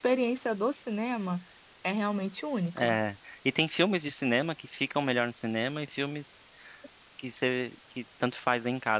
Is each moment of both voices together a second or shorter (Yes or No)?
Yes